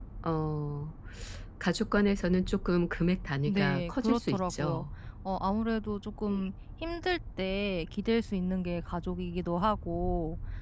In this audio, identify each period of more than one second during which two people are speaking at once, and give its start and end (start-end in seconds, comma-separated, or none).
3.5-4.8